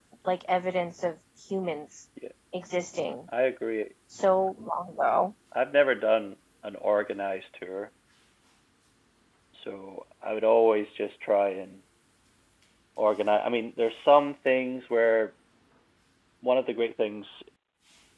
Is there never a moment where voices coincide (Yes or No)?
Yes